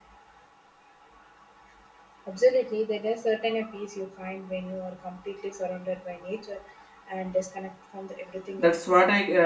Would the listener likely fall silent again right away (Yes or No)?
No